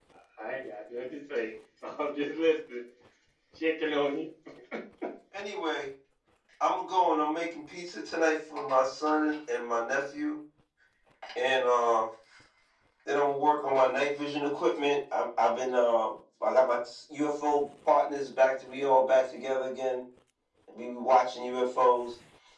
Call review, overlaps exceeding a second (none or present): none